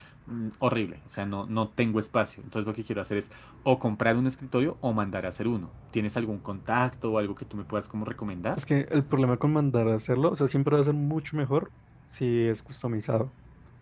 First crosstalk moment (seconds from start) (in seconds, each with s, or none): none